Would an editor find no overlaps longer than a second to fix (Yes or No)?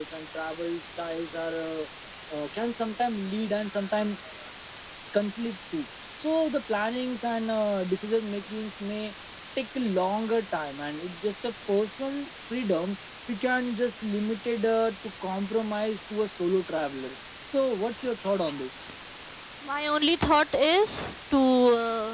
Yes